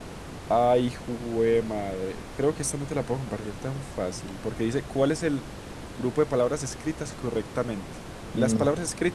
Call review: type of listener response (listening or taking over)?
listening